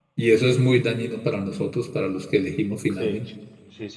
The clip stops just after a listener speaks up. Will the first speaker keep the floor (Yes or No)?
No